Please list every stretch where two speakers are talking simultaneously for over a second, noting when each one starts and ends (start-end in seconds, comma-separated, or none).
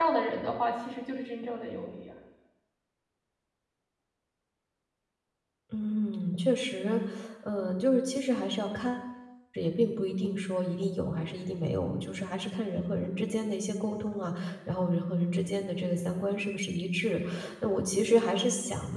none